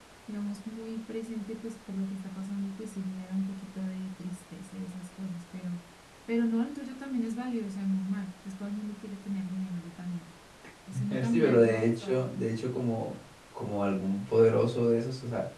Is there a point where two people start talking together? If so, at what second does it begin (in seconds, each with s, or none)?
10.9 s